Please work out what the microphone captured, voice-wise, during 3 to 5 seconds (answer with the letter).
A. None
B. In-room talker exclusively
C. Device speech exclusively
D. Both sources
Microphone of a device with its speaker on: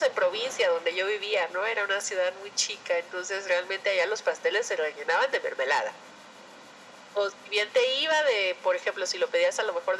C